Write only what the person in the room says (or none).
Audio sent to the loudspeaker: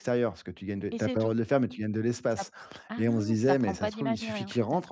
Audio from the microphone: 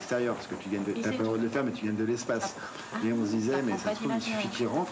none